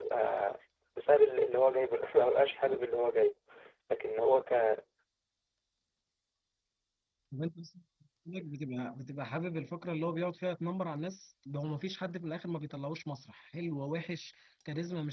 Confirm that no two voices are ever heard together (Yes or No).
Yes